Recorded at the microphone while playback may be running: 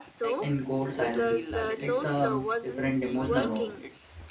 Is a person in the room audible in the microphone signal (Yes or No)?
Yes